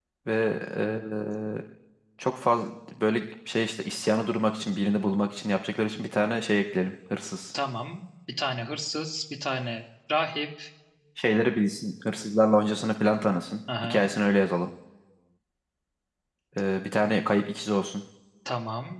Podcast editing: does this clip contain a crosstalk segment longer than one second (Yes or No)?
No